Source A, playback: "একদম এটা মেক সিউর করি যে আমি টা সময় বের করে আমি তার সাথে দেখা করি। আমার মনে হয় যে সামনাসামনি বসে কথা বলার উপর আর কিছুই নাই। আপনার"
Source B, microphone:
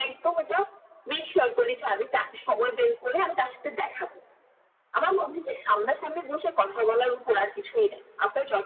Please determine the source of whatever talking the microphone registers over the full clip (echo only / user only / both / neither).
echo only